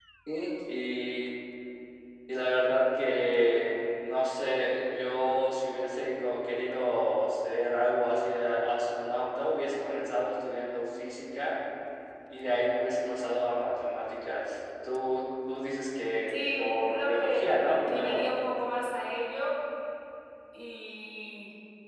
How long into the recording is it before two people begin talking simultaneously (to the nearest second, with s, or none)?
16 s